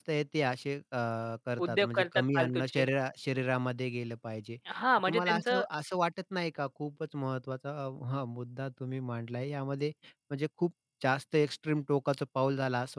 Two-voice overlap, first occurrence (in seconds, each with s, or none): 1.7 s